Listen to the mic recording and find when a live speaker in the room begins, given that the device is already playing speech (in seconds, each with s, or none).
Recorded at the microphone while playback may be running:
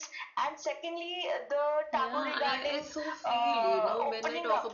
1.9 s